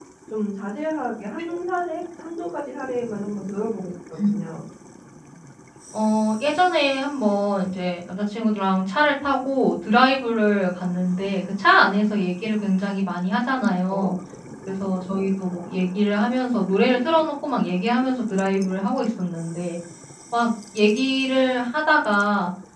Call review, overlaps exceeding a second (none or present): none